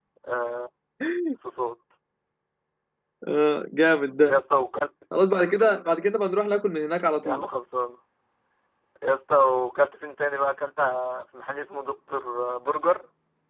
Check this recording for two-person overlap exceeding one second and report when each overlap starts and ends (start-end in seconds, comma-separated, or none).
none